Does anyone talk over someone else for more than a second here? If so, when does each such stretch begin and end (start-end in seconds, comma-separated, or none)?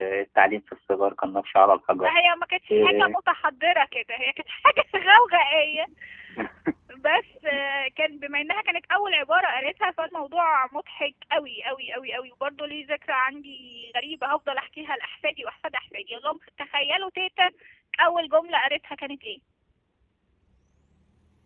none